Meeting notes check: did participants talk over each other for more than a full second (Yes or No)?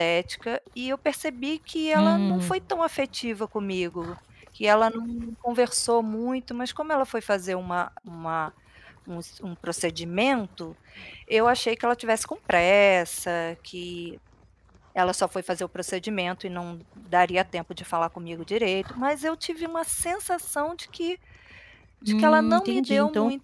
Yes